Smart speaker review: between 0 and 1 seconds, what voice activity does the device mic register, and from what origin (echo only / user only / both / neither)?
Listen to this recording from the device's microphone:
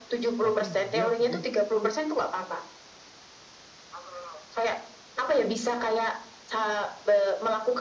both